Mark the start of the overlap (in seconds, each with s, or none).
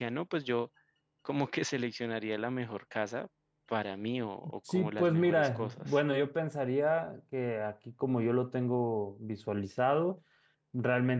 4.7 s